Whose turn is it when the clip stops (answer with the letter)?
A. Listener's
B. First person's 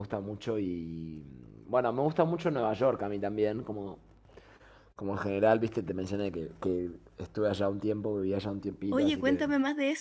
A